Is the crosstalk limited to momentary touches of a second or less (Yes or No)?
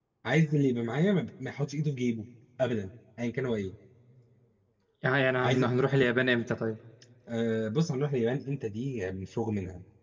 Yes